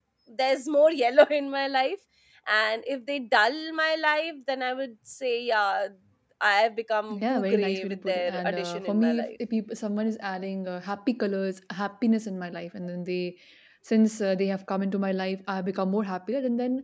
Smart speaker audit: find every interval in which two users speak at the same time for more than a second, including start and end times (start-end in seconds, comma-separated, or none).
7.1-9.3